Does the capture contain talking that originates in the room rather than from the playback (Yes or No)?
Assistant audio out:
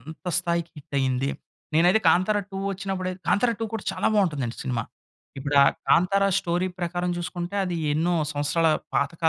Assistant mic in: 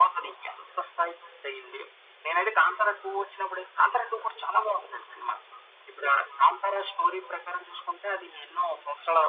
No